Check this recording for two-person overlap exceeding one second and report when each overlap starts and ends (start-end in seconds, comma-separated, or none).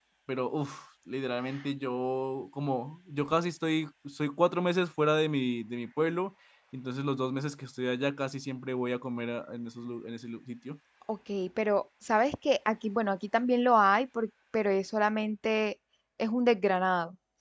none